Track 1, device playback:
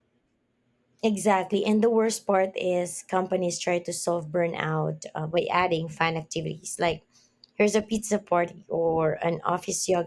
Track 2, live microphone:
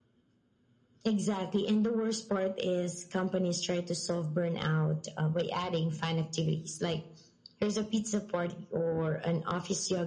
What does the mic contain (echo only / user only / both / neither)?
echo only